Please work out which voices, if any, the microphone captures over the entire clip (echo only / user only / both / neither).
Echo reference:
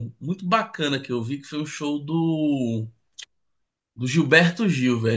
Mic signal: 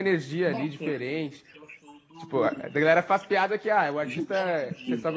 both